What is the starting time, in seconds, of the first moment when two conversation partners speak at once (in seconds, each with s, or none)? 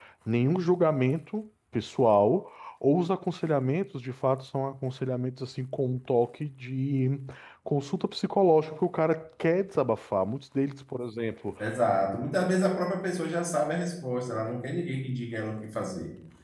none